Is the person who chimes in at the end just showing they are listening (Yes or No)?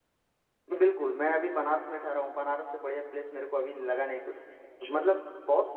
Yes